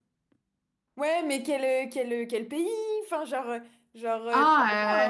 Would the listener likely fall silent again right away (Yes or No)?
No